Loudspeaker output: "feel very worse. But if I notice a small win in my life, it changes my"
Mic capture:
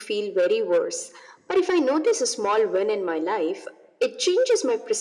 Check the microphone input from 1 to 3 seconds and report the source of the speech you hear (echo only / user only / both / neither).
echo only